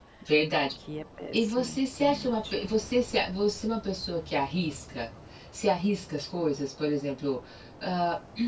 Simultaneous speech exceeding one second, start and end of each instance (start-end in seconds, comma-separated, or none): 1.3-2.5